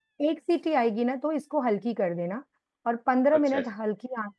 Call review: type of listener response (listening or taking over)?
listening